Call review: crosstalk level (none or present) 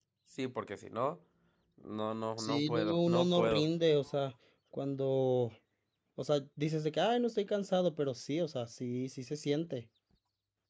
present